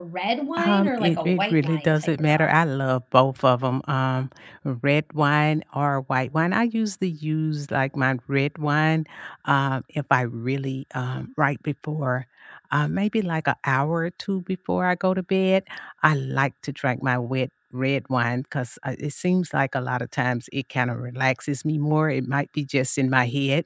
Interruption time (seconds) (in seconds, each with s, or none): 0.6 s